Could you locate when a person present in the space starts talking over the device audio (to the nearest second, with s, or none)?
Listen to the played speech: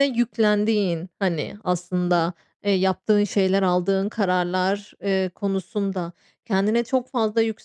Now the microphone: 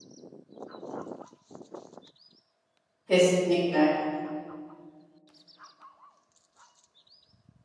3 s